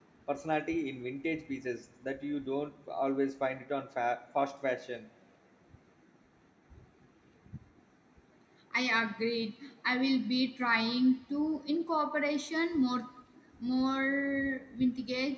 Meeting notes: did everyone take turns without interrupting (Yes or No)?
Yes